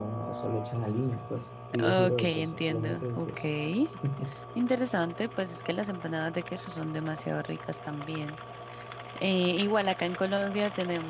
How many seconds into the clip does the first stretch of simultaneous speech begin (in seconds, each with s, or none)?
1.7 s